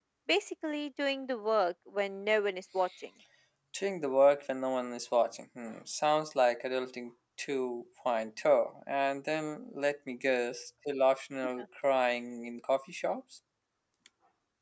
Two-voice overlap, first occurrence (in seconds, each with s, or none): none